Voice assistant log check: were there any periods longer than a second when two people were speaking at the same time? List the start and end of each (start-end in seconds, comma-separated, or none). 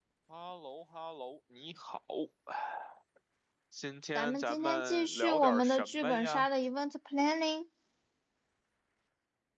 4.2-6.5